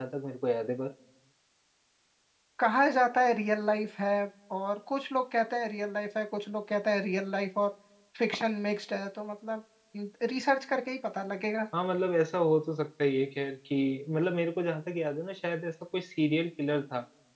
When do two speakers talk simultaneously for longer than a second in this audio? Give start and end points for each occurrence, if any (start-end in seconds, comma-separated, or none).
none